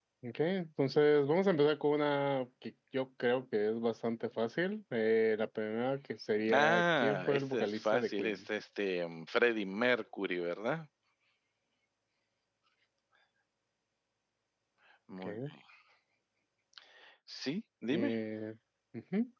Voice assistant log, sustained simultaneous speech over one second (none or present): present